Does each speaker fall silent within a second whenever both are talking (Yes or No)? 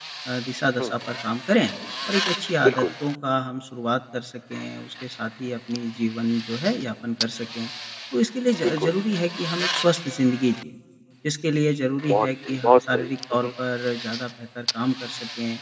No